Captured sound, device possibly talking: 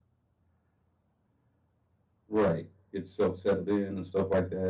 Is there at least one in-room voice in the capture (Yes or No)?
Yes